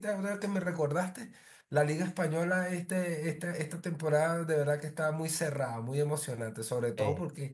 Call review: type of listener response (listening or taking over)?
listening